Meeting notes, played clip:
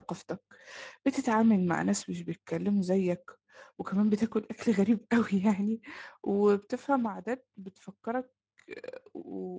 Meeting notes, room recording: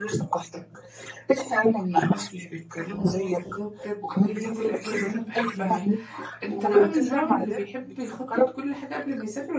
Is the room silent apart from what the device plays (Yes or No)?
No